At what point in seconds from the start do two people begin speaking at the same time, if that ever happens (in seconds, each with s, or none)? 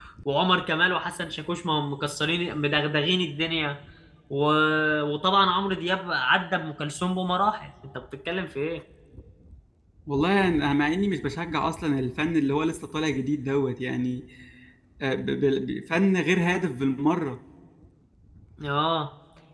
none